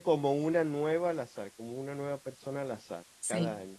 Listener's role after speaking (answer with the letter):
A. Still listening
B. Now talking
B